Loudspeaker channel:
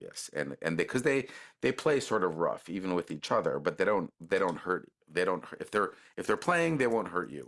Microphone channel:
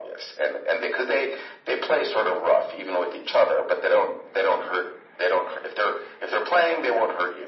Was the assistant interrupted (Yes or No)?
No